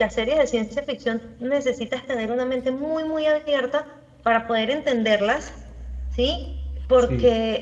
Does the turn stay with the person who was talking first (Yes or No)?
Yes